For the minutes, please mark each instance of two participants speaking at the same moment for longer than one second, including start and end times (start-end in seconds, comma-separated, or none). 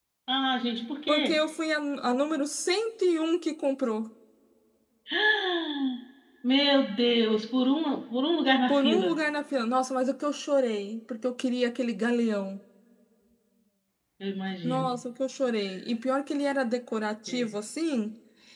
none